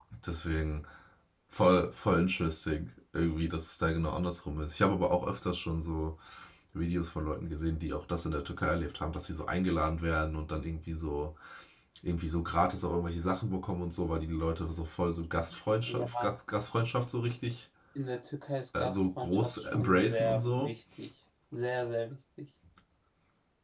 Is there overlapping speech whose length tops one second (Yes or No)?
Yes